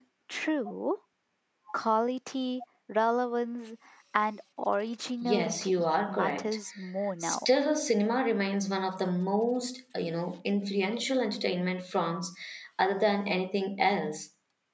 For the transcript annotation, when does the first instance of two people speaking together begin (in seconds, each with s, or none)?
5.2 s